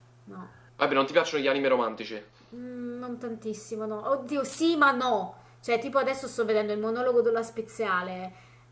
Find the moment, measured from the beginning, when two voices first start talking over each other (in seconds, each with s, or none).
none